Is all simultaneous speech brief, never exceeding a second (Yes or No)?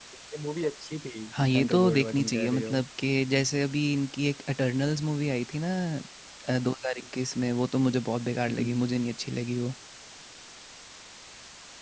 No